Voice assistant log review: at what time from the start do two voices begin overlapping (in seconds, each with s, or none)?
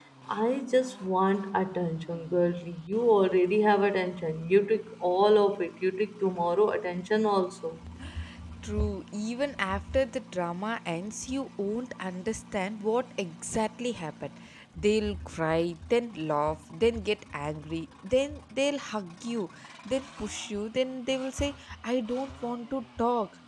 none